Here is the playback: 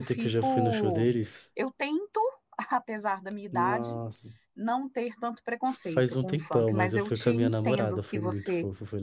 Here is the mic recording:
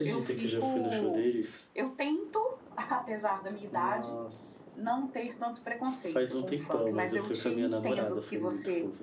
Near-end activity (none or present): none